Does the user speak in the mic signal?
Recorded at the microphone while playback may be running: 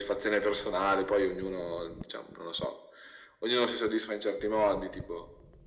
No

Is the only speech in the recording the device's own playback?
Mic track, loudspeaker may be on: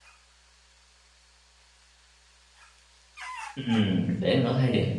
No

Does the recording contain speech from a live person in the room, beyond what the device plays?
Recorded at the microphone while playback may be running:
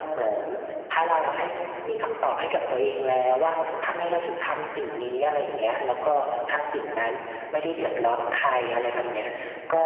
No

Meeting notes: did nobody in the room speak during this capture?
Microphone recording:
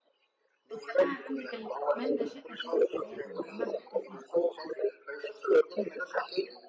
No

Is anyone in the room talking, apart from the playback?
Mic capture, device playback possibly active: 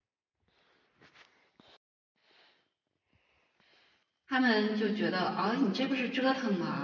Yes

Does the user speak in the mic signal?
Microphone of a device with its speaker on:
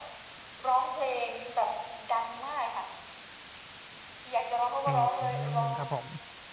Yes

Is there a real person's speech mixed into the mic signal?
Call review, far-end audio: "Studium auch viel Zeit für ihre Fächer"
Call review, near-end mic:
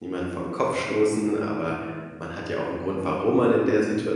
Yes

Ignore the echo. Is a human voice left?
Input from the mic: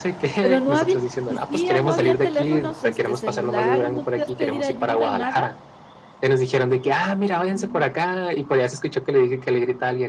Yes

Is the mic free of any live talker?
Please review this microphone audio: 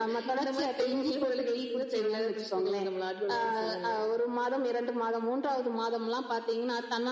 Yes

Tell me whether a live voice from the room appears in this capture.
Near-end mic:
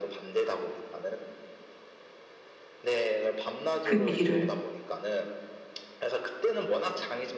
Yes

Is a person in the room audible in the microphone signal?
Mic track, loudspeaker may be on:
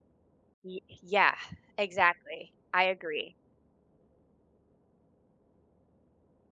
Yes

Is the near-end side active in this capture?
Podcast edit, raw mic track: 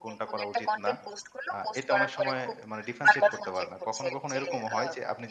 Yes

